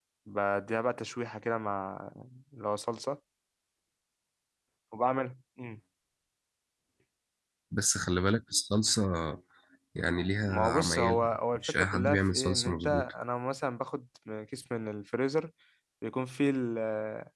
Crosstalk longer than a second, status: present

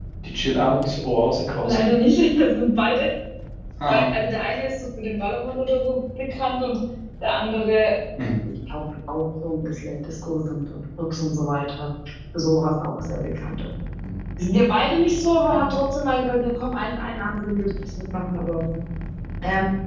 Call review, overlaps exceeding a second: none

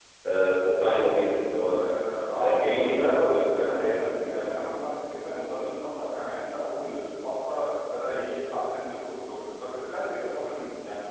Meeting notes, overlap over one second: present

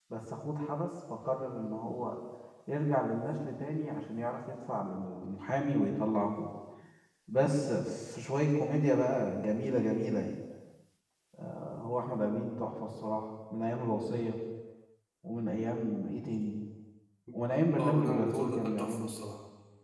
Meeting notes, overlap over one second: present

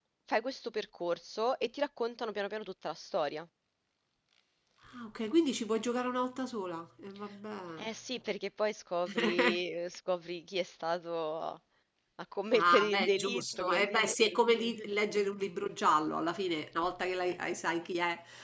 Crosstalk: present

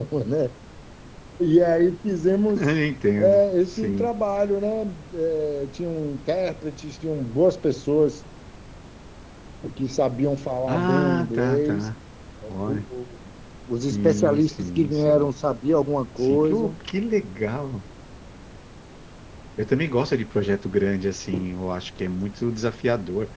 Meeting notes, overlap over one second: present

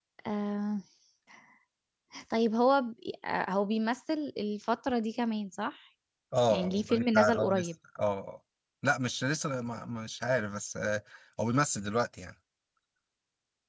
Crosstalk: present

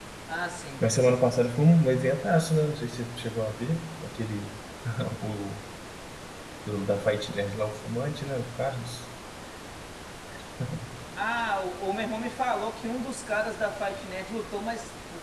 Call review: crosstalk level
none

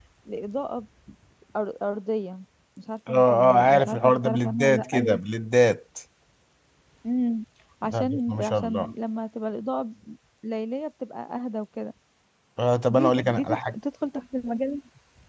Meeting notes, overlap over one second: present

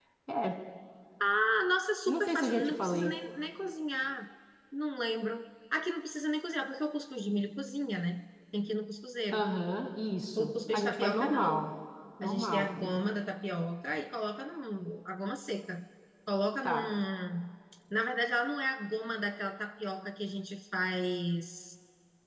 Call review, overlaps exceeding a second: present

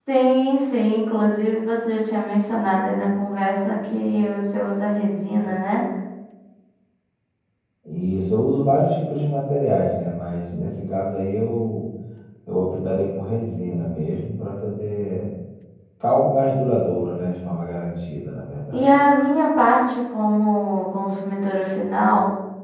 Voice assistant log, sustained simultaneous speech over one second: none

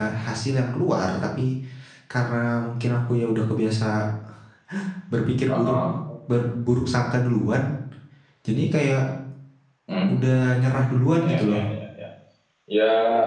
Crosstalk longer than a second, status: present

